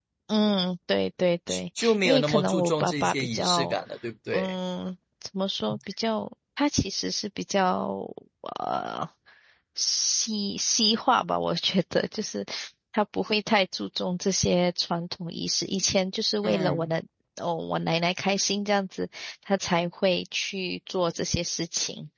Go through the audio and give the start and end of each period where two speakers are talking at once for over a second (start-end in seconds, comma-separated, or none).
1.5-3.8